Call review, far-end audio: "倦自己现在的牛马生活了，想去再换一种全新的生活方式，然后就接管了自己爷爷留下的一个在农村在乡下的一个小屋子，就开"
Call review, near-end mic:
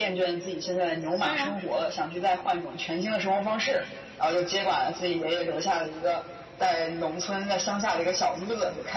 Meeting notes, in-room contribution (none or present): present